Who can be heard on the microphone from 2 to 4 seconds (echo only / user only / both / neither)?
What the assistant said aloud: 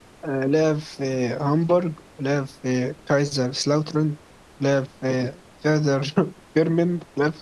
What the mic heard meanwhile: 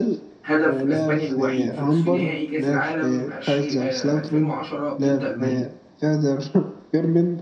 both